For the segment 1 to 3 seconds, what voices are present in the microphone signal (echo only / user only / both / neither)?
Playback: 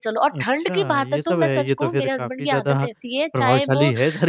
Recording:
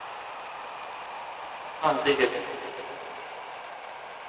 user only